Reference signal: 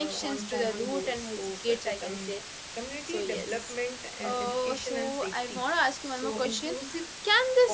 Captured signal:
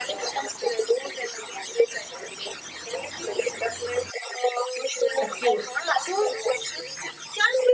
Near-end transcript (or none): occur so